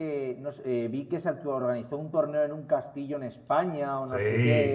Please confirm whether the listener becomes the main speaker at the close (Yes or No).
No